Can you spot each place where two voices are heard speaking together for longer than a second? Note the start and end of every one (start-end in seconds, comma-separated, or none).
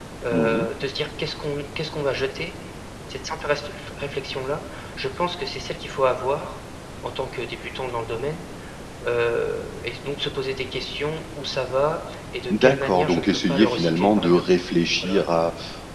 12.5-14.4